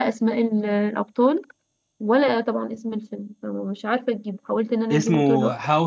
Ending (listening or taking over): taking over